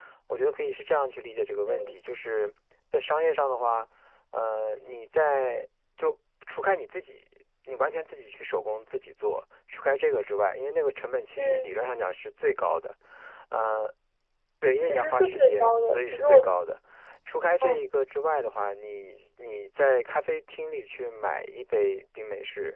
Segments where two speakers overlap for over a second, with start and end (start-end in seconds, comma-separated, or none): 14.8-16.4